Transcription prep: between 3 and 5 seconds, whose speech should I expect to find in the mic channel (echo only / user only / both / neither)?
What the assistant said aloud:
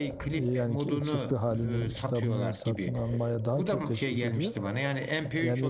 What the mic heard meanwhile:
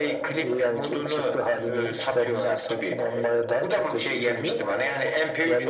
echo only